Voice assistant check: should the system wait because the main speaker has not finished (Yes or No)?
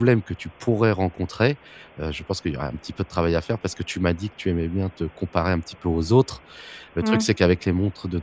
Yes